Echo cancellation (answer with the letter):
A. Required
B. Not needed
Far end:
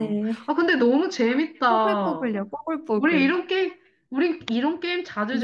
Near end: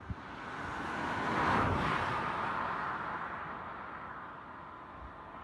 B